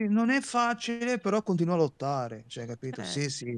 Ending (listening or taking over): listening